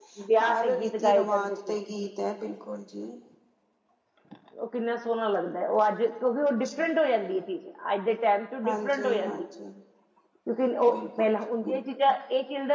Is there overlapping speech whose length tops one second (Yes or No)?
Yes